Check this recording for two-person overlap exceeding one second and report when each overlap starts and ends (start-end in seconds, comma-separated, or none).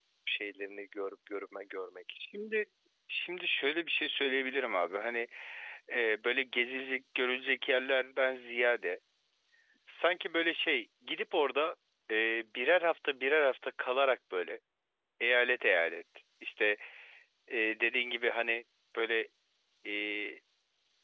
none